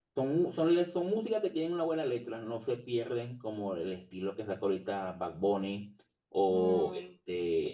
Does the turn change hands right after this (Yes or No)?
No